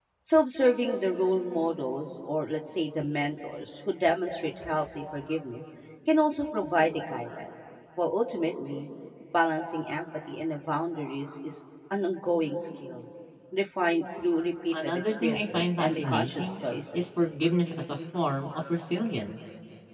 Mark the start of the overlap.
14.7 s

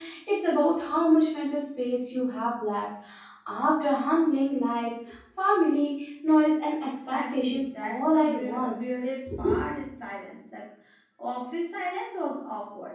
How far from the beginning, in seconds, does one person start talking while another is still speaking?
7.1 s

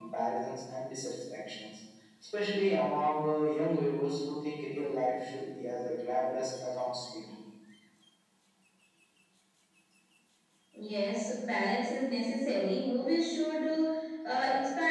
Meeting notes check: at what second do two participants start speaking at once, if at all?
none

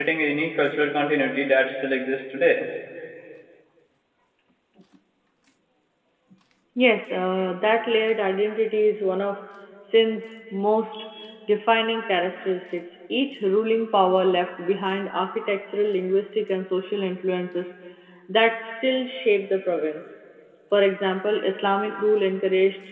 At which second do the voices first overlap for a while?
none

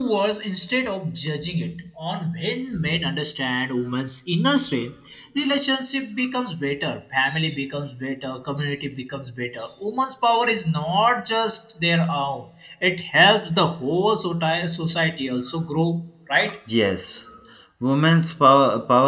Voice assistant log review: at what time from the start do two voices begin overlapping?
none

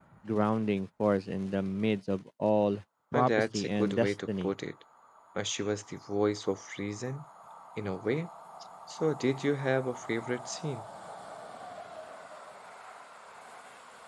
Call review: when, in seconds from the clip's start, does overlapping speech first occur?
3.1 s

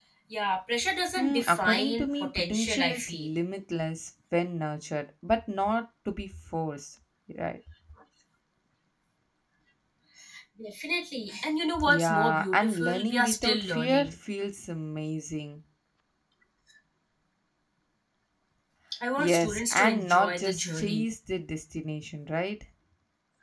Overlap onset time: 1.2 s

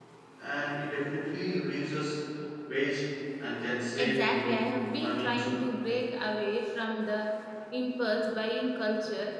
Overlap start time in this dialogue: 4.0 s

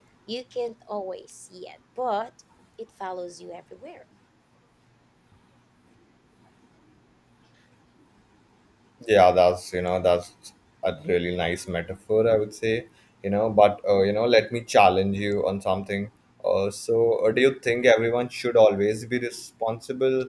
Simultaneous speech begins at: none

